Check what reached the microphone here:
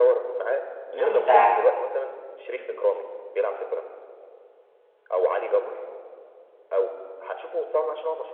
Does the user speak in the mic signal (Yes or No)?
Yes